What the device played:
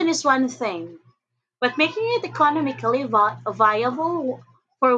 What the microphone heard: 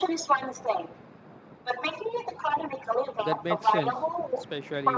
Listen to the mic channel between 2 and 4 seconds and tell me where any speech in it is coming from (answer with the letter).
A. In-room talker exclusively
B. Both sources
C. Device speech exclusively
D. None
B